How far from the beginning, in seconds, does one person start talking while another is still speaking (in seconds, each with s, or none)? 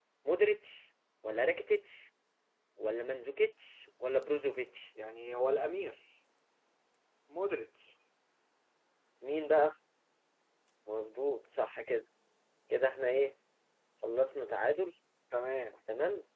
none